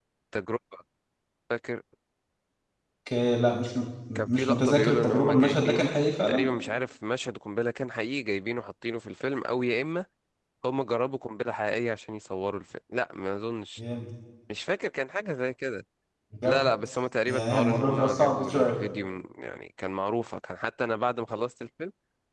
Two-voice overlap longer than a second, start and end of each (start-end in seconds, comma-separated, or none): 4.2-5.8, 17.3-18.8